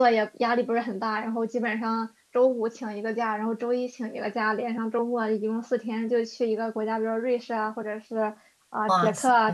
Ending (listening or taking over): listening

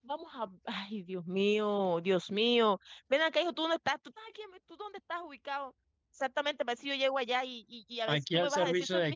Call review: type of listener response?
taking over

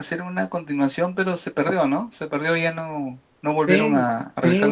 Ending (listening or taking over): taking over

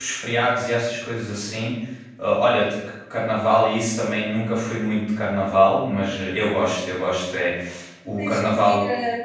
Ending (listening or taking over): taking over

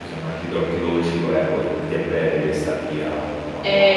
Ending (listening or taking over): taking over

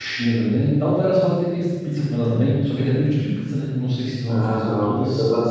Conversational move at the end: taking over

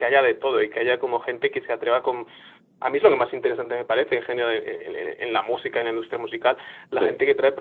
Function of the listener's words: listening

